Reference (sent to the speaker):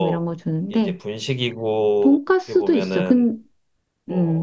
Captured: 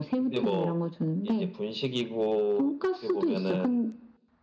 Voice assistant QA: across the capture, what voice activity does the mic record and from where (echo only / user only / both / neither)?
echo only